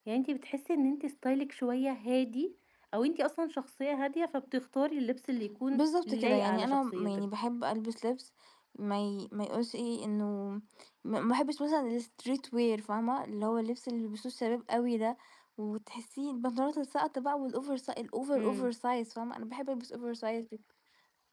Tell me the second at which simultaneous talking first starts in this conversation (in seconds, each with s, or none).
5.7 s